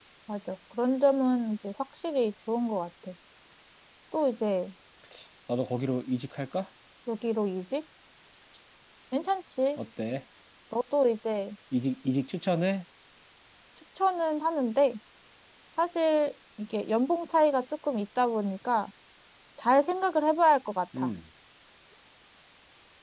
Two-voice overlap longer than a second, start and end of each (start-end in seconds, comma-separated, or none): none